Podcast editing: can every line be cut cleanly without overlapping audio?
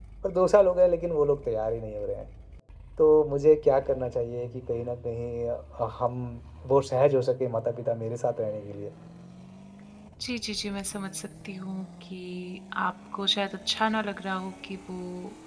Yes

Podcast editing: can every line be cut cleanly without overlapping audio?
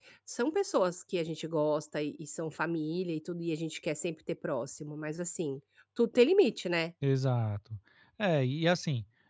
Yes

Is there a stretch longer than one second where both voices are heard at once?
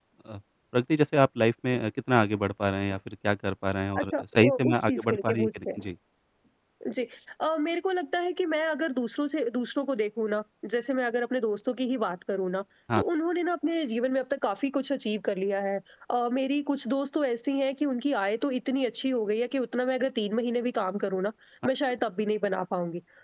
Yes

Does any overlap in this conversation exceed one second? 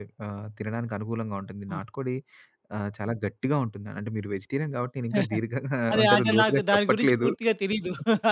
Yes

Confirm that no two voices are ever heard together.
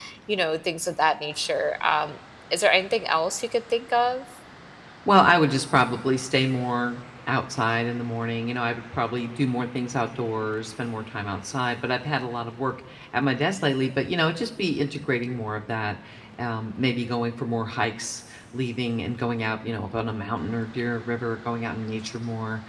Yes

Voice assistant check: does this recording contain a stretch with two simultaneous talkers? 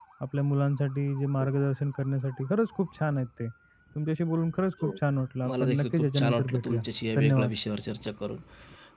Yes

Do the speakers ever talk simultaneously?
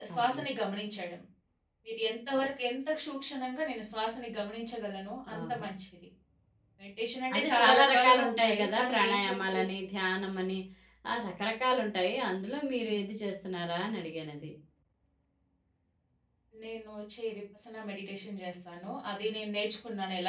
Yes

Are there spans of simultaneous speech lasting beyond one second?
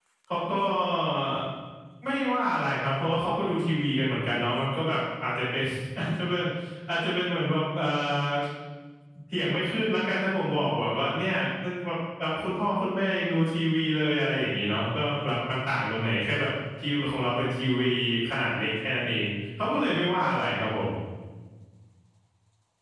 No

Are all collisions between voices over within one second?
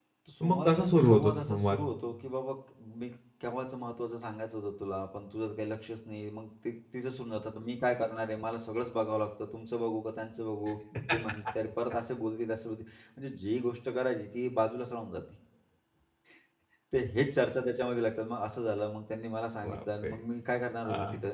No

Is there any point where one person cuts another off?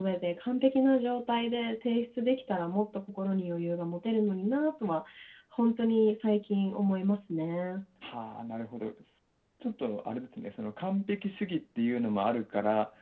No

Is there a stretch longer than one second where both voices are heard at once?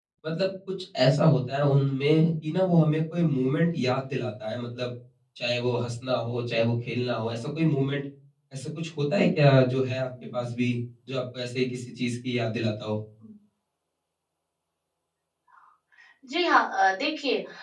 No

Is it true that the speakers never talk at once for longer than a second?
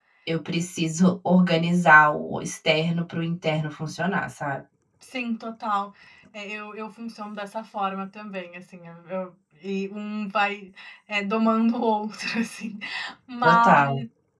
Yes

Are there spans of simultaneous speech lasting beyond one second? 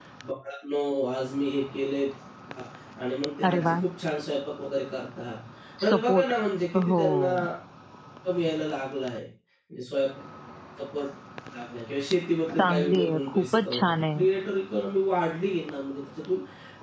Yes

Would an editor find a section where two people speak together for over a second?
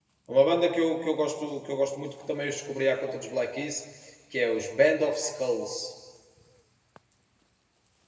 No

